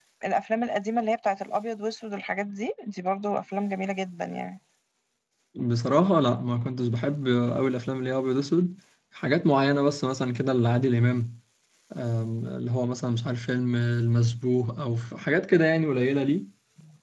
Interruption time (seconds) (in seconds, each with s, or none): none